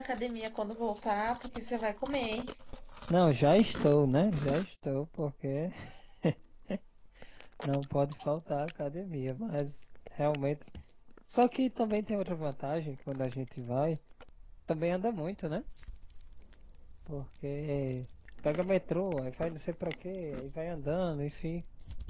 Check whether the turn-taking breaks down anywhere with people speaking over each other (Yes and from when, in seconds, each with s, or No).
No